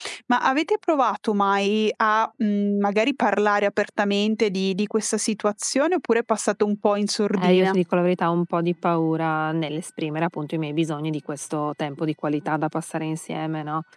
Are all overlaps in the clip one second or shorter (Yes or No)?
Yes